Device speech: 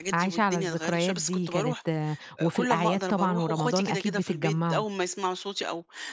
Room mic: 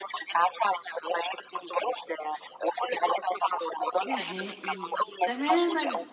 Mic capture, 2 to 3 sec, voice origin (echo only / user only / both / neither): echo only